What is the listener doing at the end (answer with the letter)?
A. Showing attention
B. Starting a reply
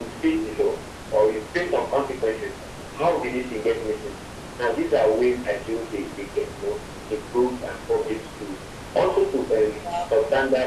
A